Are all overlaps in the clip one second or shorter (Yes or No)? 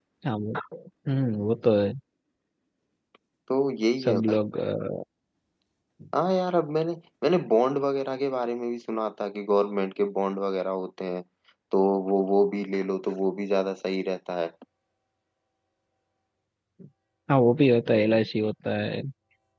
Yes